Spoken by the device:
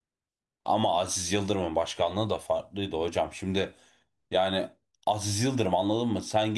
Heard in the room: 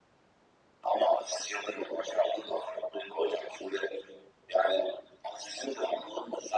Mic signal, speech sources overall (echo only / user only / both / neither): echo only